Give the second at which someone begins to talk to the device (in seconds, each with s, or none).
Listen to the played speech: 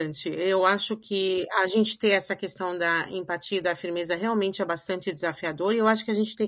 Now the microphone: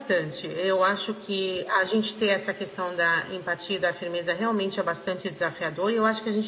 none